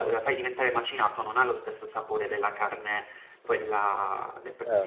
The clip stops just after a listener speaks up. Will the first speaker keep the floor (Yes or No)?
No